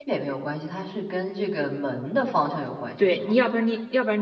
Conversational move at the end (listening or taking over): taking over